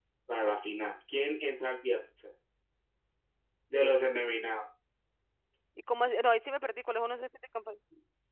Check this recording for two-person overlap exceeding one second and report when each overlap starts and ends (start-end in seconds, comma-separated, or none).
none